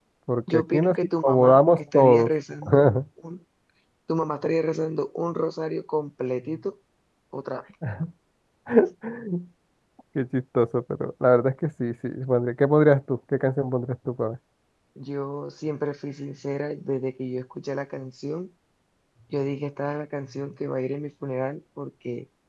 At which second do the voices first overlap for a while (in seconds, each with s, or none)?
0.5 s